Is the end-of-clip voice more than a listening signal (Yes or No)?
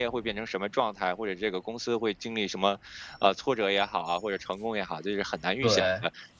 No